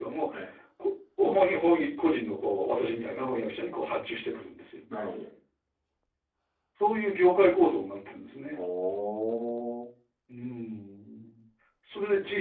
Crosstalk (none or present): none